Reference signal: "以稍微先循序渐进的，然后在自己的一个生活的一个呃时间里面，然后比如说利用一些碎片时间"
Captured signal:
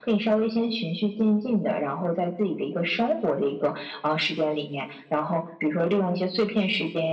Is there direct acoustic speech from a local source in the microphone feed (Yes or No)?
No